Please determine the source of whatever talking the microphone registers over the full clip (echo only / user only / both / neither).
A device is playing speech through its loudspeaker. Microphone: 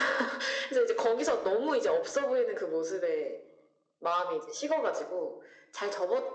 echo only